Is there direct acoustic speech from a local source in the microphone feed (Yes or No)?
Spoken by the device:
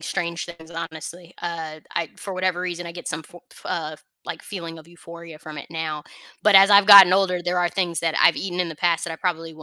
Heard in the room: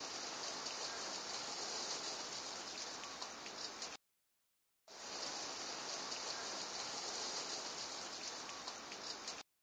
No